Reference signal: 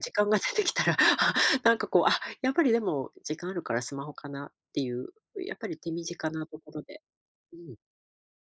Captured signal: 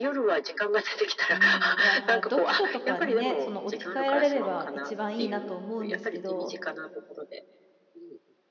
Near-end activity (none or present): present